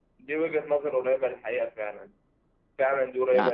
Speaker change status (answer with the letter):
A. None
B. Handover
A